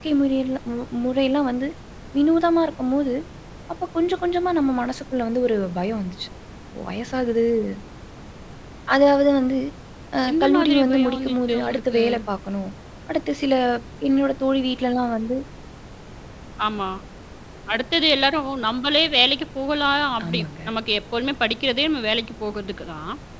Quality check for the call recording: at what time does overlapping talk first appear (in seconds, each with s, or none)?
10.3 s